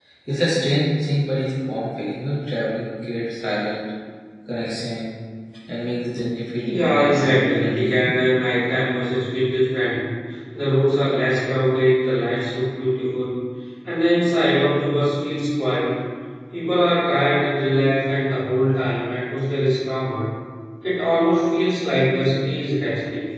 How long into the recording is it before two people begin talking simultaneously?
6.6 s

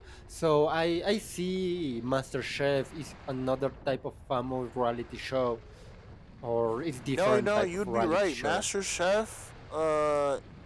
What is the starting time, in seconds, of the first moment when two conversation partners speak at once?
7.1 s

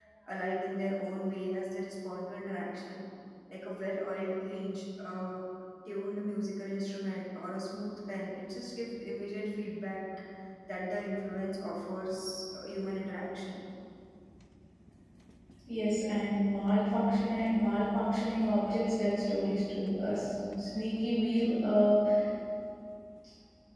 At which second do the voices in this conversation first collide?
none

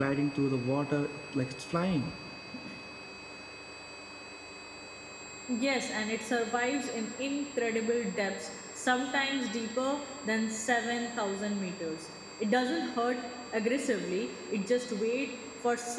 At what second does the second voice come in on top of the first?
none

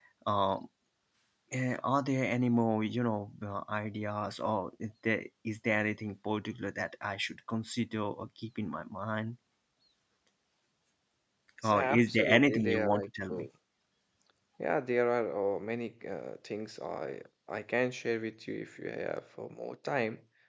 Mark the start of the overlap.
11.6 s

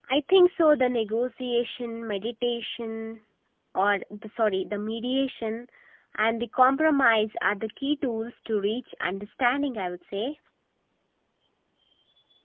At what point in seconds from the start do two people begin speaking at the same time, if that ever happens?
none

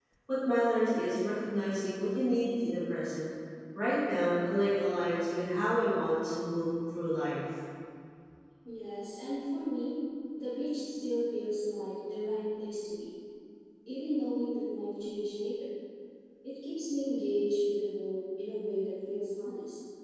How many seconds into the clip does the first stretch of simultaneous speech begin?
none

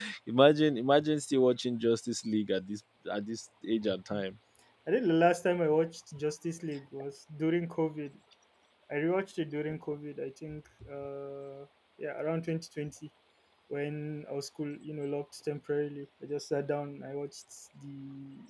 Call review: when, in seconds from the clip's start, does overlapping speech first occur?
none

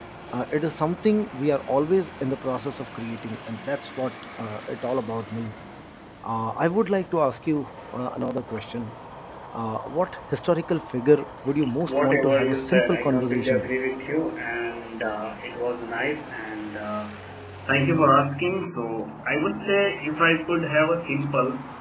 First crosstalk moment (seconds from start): 11.8 s

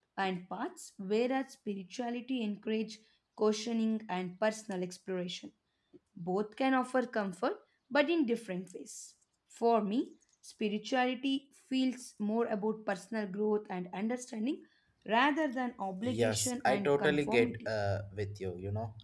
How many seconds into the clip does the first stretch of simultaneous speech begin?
16.0 s

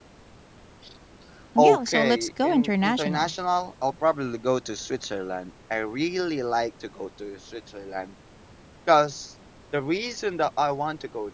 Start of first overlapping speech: 1.6 s

